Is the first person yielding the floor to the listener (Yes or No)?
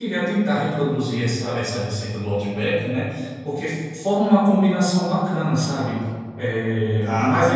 No